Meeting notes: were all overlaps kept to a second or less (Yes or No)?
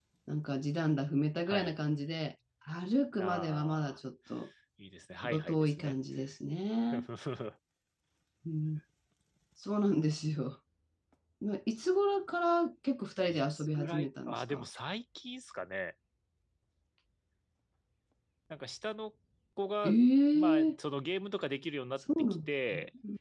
No